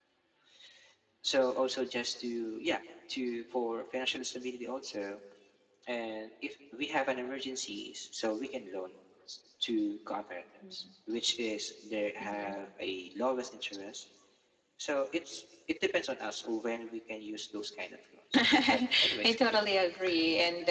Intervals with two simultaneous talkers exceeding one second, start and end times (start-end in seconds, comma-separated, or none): 18.4-19.7